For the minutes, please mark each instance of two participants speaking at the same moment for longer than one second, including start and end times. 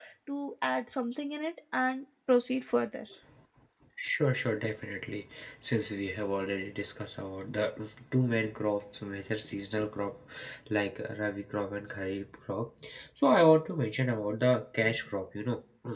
none

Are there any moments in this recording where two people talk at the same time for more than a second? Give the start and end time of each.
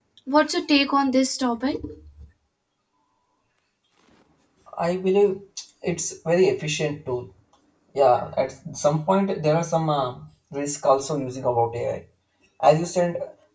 none

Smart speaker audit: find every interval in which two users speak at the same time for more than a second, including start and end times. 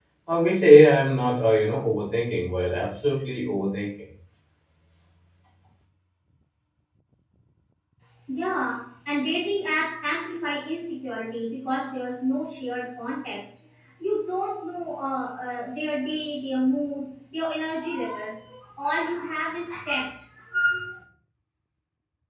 none

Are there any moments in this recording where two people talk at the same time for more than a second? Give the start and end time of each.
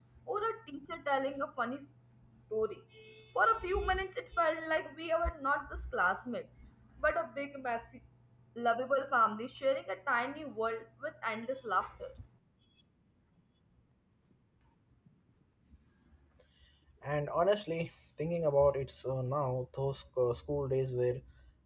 none

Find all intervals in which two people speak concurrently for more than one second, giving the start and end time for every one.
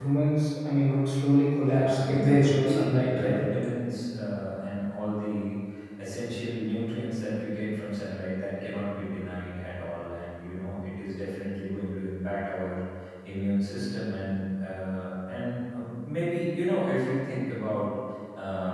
1.8-3.3

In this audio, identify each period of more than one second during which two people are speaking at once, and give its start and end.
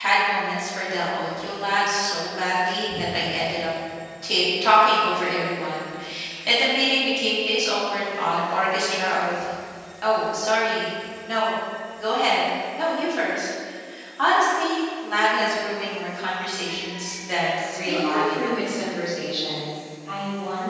17.6-18.8

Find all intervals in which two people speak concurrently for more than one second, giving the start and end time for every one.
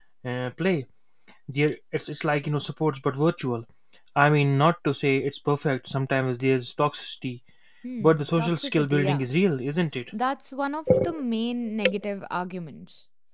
8.0-9.2

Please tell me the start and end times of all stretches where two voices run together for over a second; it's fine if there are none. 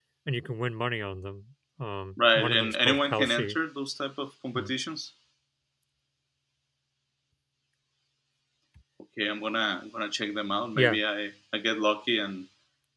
2.4-3.6

